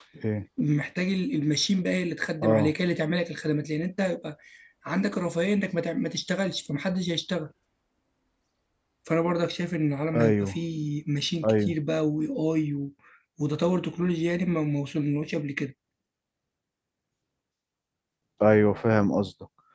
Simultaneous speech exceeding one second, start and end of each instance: none

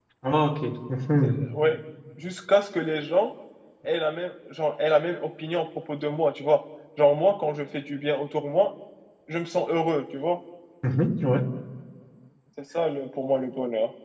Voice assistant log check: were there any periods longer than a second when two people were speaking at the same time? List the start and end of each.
none

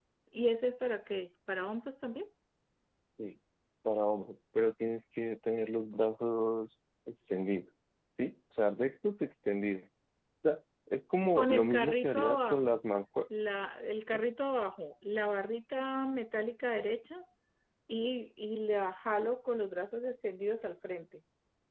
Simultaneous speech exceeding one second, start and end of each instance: 11.3-12.8

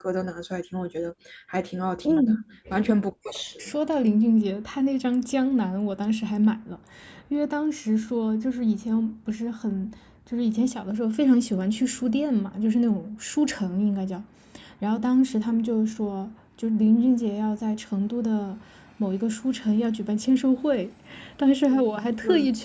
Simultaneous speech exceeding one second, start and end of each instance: none

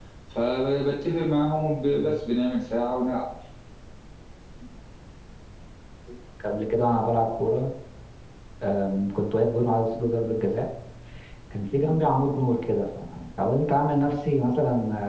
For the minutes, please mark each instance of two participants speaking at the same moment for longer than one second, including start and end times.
none

